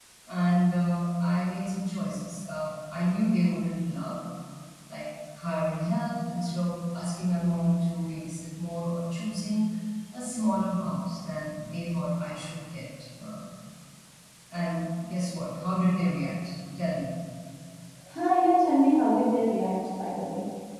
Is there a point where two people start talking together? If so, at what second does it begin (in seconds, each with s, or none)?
none